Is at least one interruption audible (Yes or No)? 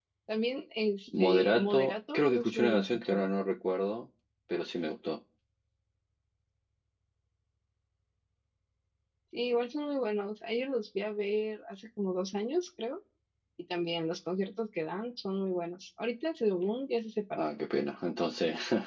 Yes